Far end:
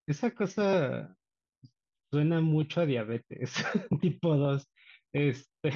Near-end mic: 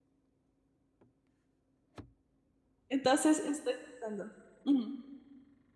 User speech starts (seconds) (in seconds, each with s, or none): 2.9 s